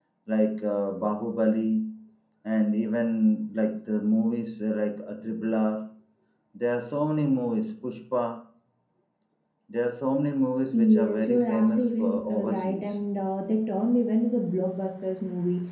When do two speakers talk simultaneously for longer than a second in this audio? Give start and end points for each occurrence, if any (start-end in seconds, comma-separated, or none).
10.8-13.0